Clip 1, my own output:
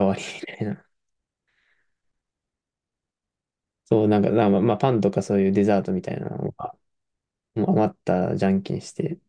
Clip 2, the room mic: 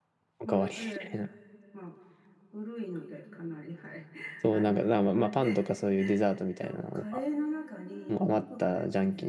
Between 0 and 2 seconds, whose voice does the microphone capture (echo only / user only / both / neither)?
both